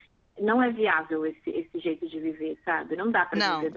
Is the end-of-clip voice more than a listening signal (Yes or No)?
No